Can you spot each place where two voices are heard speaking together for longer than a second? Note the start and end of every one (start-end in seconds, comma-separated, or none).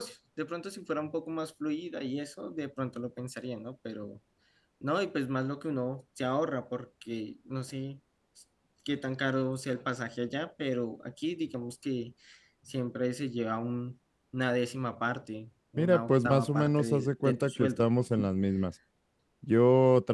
15.8-17.9